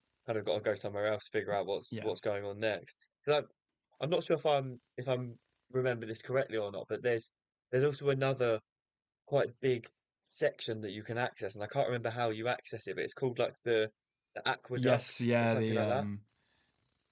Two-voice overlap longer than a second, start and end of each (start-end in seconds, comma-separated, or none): 14.7-16.1